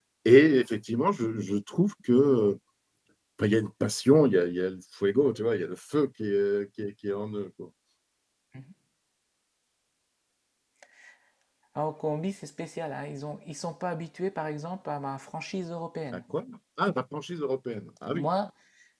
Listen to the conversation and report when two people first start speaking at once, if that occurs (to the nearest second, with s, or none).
none